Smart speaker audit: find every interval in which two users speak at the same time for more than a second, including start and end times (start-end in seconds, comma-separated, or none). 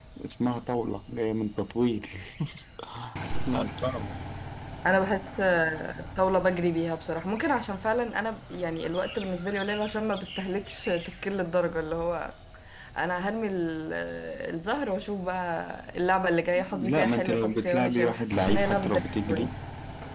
16.8-19.5